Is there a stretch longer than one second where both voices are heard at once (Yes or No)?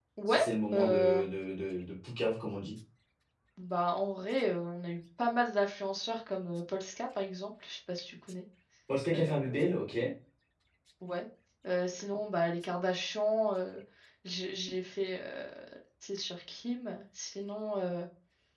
No